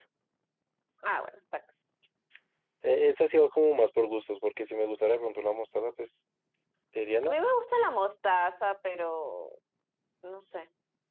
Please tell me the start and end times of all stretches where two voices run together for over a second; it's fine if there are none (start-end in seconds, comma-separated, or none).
none